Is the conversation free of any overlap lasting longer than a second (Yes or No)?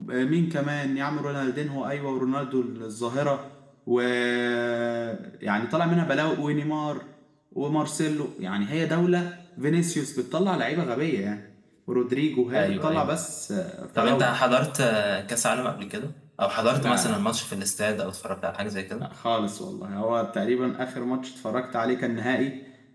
Yes